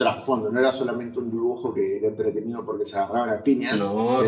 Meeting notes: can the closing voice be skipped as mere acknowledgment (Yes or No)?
Yes